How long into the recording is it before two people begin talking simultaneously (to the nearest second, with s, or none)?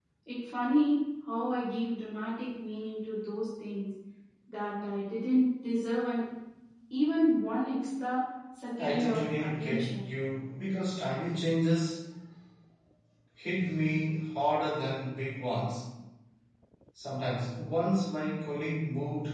9 s